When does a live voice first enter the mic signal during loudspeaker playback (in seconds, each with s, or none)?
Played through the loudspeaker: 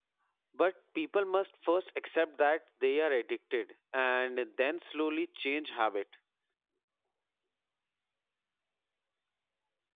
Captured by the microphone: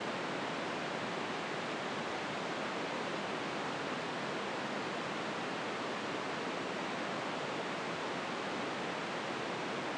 none